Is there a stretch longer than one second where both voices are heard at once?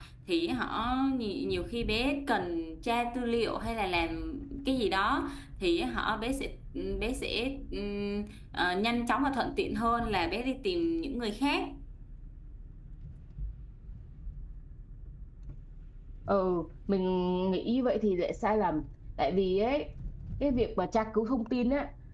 No

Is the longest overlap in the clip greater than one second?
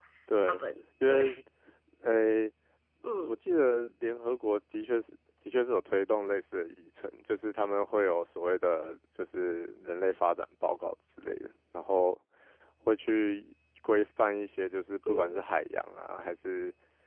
No

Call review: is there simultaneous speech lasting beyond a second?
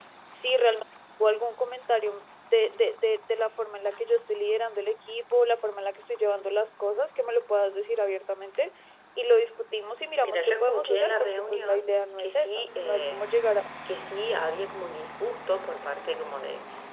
Yes, from 10.2 s

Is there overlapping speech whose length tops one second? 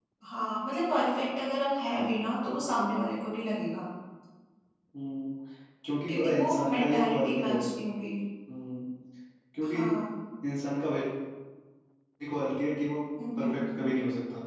Yes, from 6.1 s

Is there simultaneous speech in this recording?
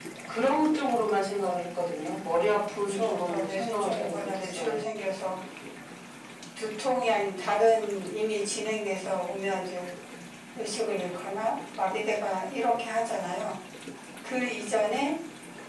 Yes, from 2.9 s

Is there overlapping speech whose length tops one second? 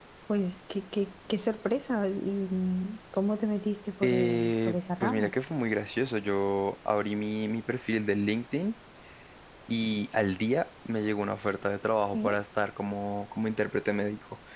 Yes, from 4.0 s

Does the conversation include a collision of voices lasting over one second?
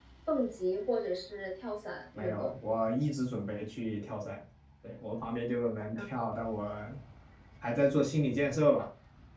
No

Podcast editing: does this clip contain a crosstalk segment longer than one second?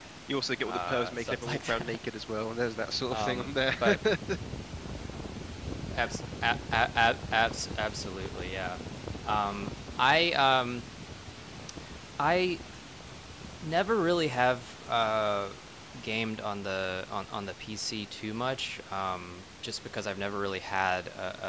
Yes, from 0.6 s

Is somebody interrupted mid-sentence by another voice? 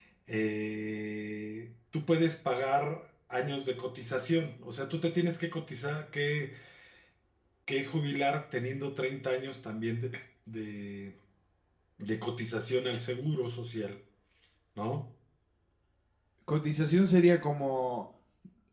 No

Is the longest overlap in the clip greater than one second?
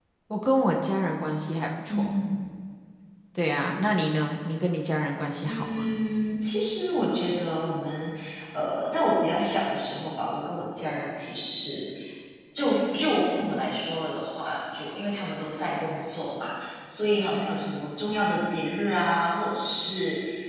No

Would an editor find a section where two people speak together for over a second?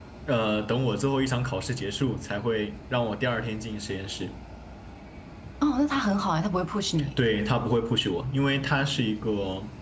No

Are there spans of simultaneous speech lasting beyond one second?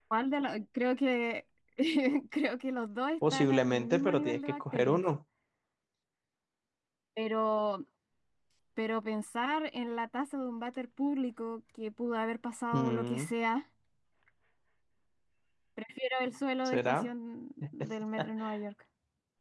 Yes, from 3.3 s

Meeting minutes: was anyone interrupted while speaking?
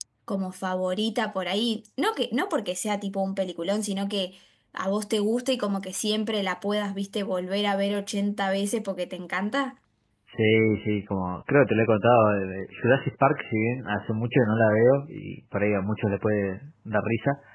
No

